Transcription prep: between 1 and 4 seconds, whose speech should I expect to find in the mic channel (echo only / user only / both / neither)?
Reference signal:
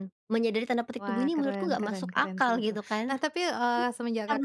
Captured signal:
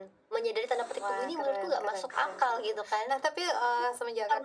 echo only